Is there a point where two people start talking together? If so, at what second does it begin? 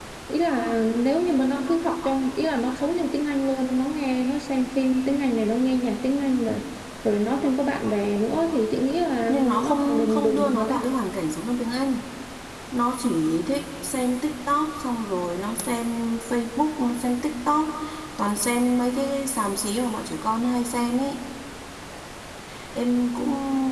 9.3 s

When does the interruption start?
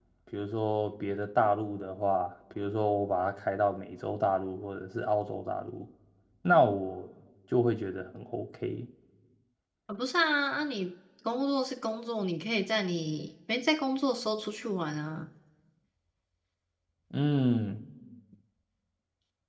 none

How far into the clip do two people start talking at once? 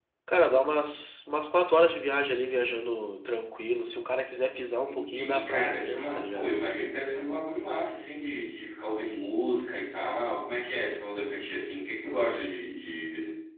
4.8 s

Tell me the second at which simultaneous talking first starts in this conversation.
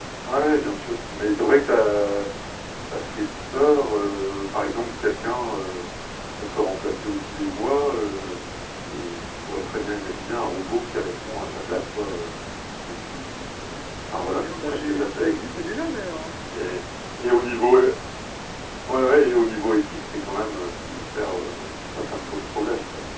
14.1 s

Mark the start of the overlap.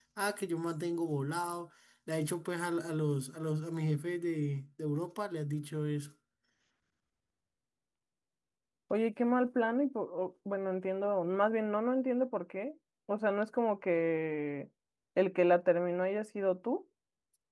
none

